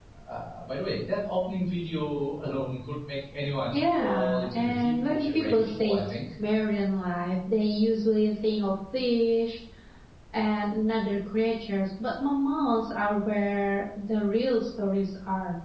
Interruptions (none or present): present